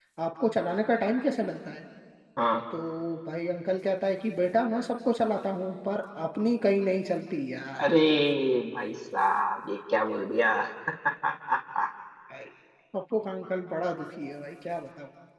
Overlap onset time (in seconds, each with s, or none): none